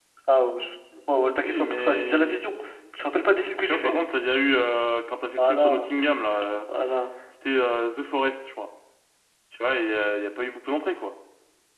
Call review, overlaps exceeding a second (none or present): present